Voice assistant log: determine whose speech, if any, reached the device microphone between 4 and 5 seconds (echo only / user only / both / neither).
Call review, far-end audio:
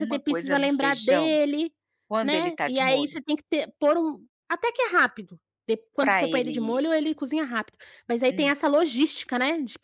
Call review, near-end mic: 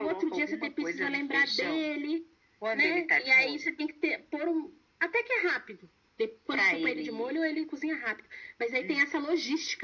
echo only